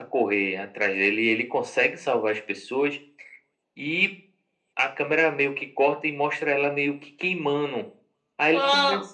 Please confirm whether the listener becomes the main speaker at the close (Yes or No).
No